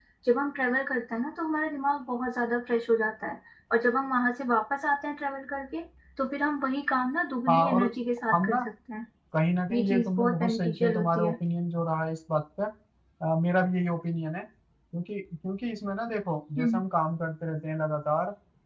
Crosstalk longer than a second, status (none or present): present